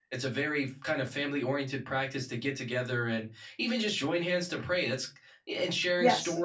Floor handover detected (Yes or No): No